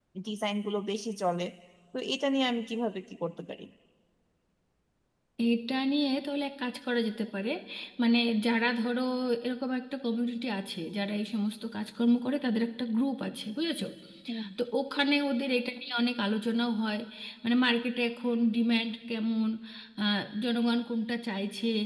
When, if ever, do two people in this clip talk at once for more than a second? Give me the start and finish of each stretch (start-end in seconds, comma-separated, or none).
none